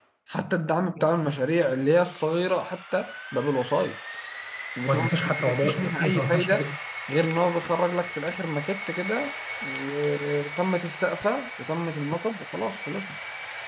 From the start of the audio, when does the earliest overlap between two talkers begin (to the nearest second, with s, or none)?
5 s